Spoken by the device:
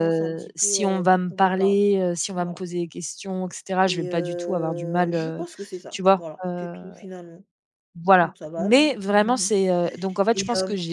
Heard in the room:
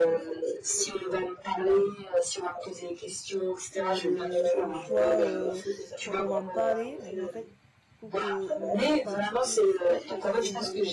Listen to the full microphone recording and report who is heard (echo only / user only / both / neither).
both